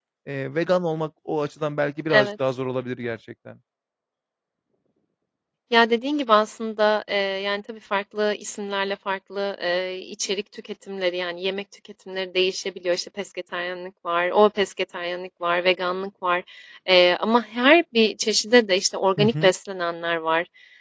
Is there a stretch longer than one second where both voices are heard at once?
No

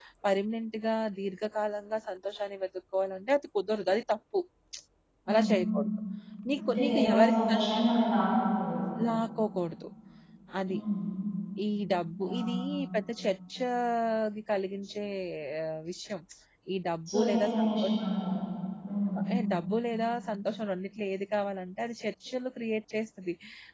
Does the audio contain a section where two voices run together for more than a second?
Yes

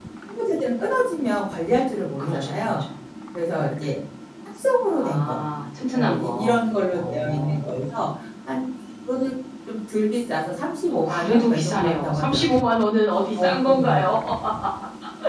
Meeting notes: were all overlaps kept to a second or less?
No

